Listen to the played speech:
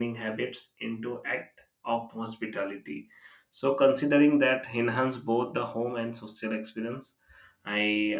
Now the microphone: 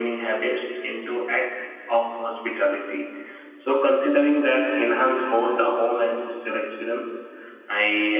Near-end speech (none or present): none